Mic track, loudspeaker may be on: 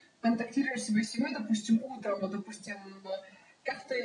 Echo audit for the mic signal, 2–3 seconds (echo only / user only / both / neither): echo only